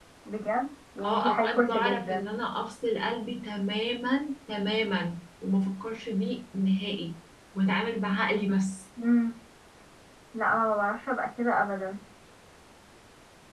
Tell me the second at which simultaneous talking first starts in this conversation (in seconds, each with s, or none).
1.0 s